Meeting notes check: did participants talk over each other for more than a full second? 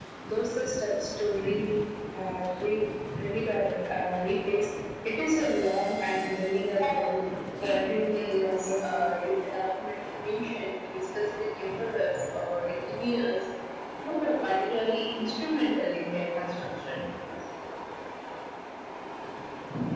Yes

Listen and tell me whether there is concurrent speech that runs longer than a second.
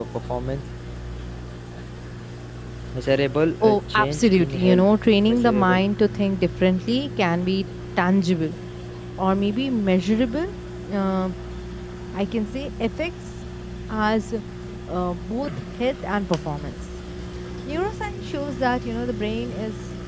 Yes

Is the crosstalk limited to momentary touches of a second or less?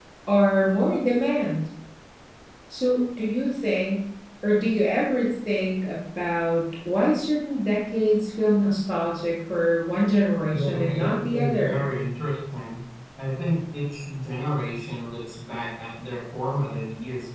No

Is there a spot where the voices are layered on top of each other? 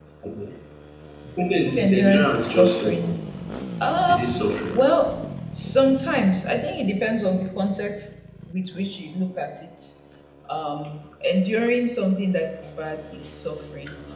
Yes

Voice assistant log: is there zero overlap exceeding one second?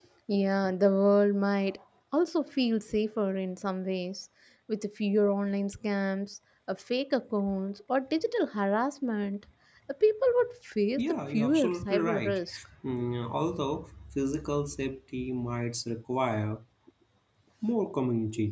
No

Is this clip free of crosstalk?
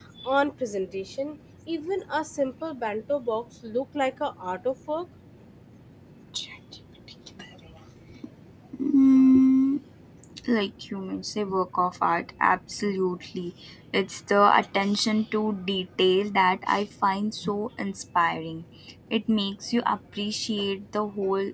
Yes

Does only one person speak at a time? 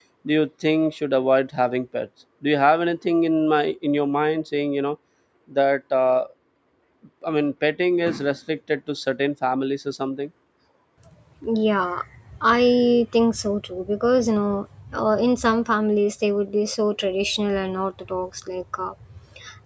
Yes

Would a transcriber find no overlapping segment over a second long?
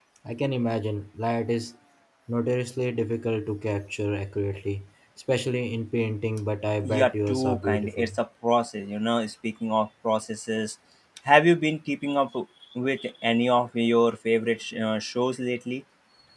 No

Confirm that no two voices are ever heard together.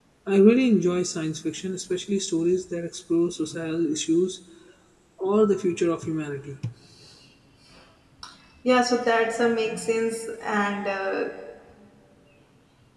Yes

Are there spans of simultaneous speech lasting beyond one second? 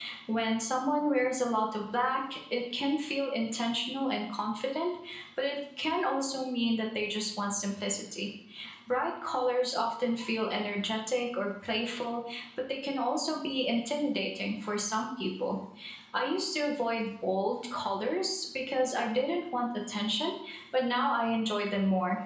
No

